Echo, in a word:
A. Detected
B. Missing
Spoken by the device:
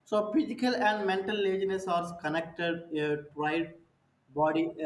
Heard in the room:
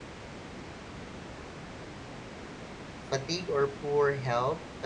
B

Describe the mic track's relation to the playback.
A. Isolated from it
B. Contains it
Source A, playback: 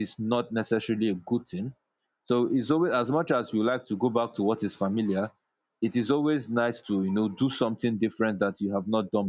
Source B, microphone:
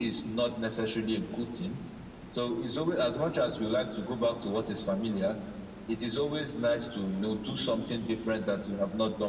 B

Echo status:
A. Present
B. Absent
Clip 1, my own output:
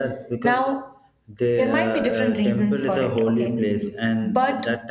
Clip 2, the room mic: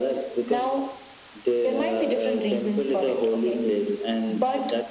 A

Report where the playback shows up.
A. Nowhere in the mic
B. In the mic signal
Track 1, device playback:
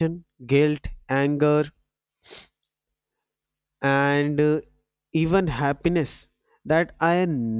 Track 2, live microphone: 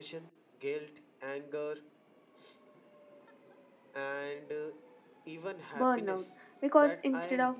B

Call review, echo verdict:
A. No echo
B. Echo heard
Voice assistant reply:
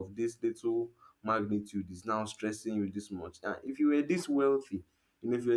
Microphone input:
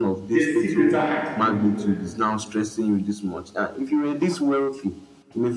B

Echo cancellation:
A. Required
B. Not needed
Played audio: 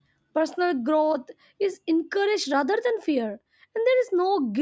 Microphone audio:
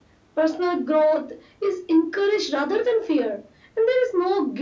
A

